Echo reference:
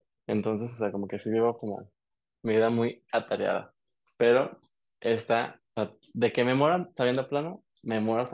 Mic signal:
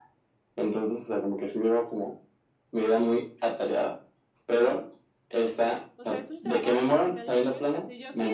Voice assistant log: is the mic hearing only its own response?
No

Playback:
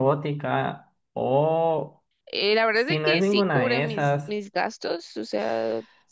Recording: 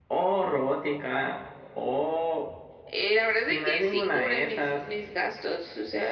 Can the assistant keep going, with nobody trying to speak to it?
Yes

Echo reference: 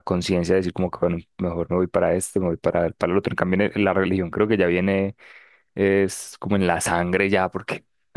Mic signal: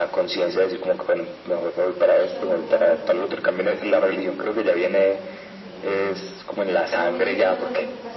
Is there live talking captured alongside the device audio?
Yes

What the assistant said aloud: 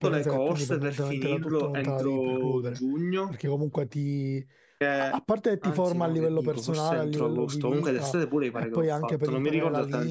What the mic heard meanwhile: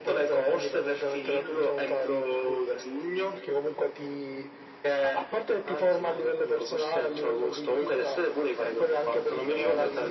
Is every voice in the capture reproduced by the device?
Yes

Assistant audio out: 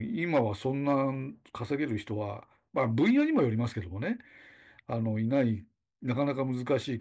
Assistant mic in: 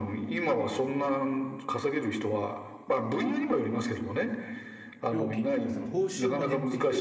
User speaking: Yes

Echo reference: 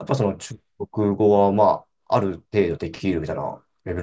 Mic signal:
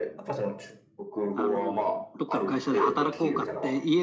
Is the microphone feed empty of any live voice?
No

